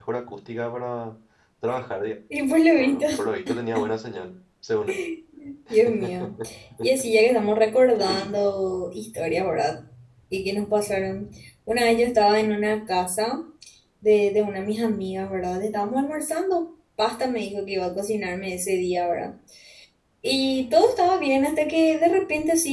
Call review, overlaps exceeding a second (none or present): none